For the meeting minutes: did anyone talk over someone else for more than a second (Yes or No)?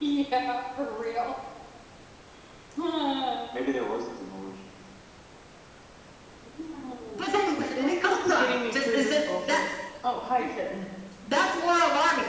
Yes